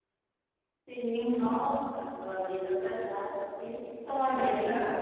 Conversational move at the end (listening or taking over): taking over